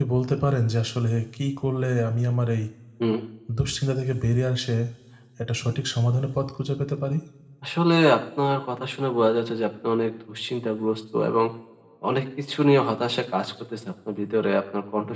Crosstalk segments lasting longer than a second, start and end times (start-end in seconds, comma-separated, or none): none